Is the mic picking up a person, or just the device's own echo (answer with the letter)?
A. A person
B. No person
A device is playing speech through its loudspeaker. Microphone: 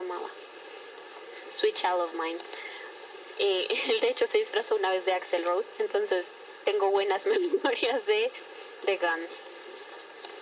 B